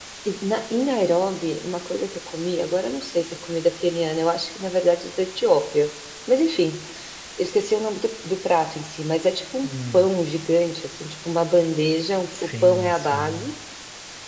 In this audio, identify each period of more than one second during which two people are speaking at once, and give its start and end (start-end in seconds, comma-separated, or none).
12.3-13.5